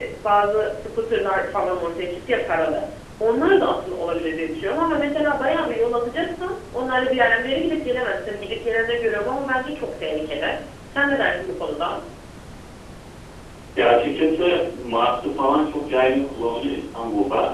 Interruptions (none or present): none